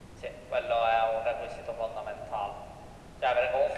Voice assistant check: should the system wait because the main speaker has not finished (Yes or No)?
Yes